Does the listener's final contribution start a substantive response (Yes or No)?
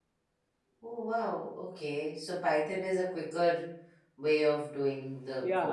Yes